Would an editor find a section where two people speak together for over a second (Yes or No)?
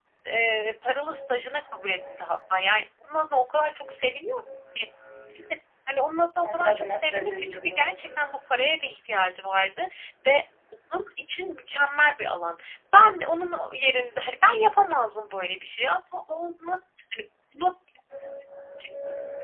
Yes